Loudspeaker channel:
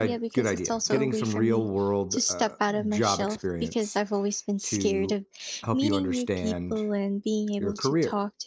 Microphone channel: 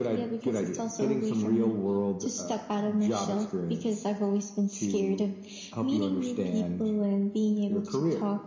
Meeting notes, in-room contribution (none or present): none